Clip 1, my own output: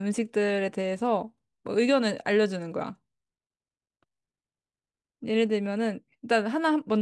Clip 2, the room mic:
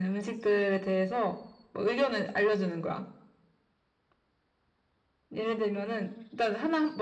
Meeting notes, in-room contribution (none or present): none